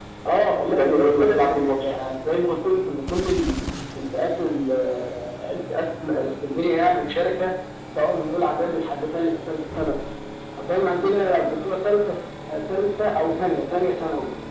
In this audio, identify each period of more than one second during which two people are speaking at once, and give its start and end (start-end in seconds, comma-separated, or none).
0.6-1.8